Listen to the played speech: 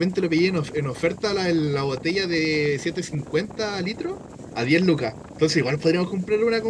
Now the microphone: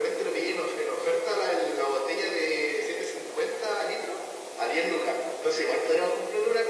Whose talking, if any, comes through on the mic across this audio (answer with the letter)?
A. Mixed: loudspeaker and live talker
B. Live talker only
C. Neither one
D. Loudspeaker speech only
D